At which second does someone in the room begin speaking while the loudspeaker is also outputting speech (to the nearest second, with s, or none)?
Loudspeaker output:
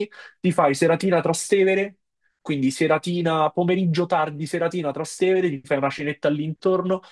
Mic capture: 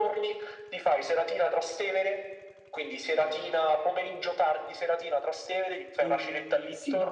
6 s